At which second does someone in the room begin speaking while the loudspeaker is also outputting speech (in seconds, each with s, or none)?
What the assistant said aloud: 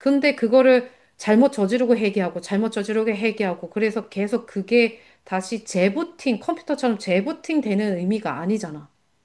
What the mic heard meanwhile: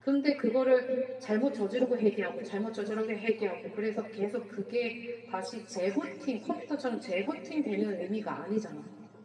none